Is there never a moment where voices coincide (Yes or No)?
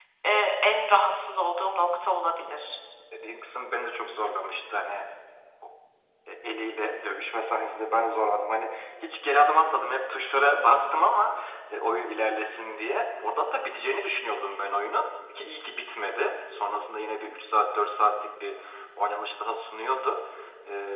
Yes